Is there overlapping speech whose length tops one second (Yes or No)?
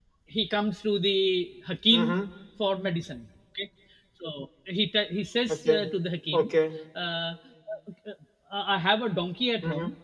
No